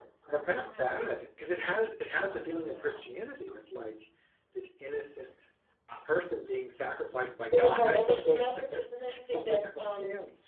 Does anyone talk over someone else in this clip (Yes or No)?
Yes